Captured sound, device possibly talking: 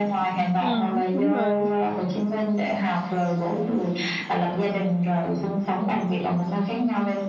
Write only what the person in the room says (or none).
Ừ, đúng rồi.